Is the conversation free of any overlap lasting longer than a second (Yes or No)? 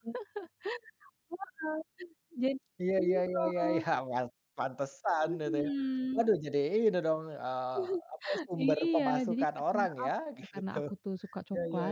No